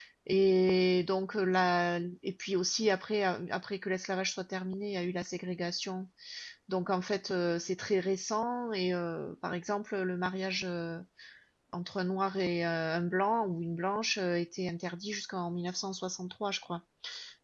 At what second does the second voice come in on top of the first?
none

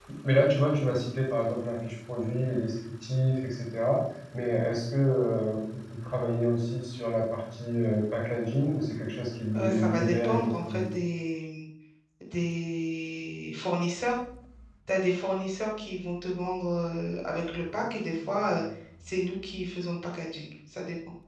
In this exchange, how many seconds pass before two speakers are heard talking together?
10 s

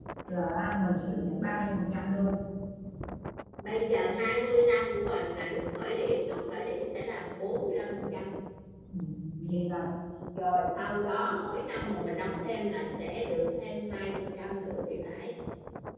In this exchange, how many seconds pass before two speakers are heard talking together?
none

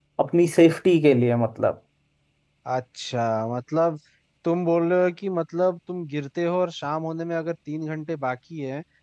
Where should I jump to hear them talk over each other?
none

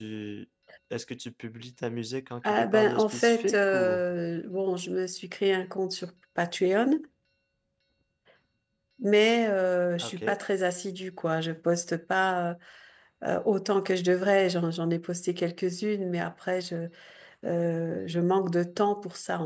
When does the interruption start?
2 s

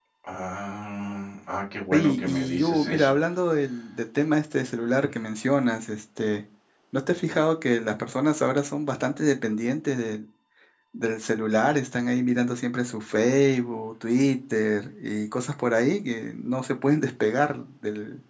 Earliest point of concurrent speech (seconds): 2 s

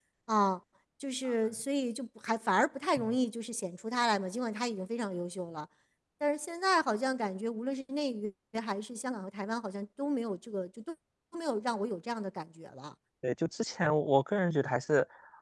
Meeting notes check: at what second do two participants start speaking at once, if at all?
none

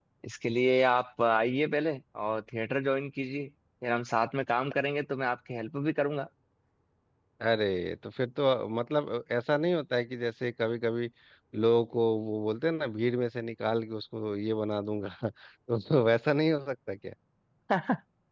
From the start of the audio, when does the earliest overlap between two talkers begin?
none

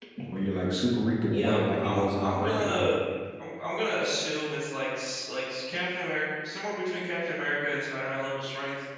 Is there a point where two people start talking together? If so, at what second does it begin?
1 s

